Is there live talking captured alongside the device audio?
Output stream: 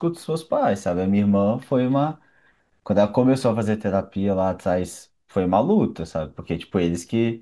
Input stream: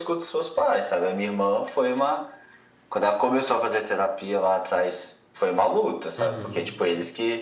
Yes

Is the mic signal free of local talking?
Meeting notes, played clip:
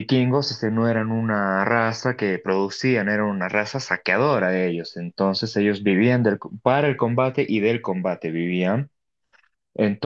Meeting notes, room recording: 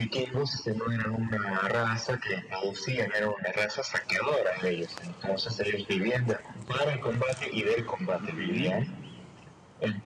No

